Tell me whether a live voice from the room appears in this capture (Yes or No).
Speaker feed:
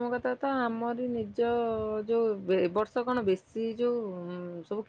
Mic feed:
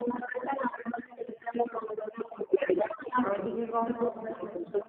Yes